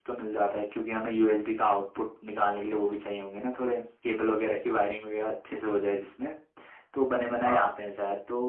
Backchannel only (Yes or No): Yes